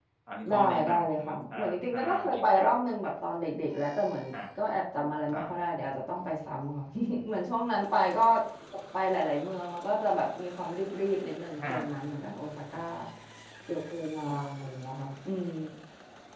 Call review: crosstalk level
present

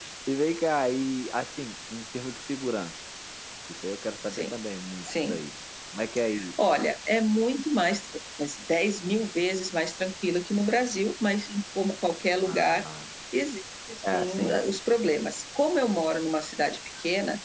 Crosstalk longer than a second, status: none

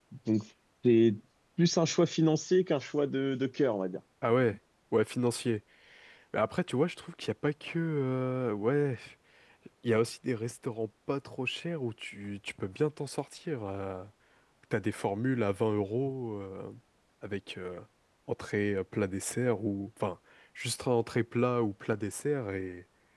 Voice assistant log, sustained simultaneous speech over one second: none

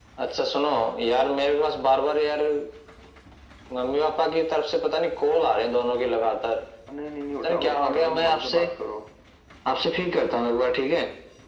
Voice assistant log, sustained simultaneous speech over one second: present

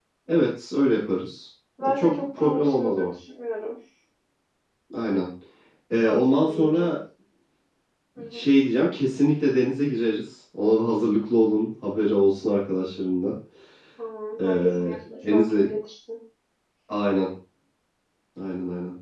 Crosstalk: present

